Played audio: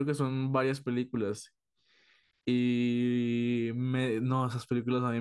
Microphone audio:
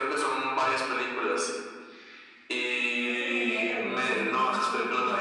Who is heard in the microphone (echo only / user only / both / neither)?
both